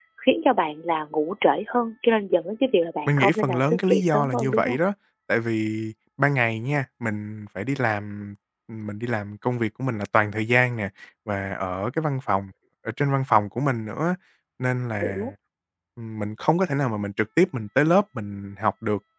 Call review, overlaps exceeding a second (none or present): present